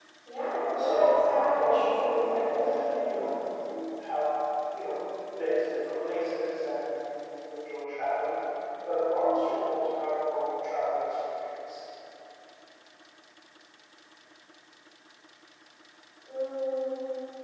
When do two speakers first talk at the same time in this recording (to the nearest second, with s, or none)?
1 s